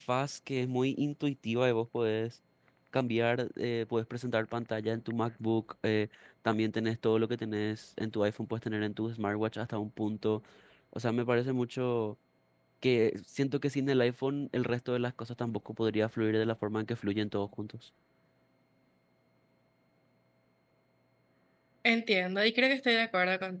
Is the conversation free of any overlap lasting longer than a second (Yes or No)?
Yes